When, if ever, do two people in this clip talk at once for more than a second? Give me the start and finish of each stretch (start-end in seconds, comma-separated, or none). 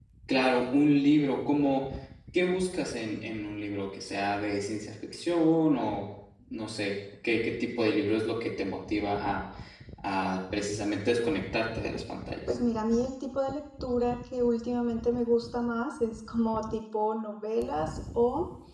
none